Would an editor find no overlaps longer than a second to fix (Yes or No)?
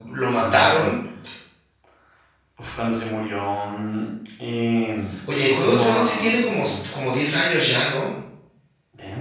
No